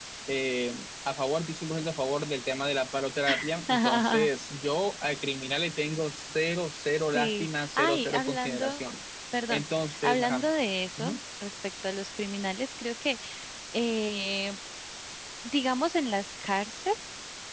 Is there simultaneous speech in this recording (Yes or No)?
Yes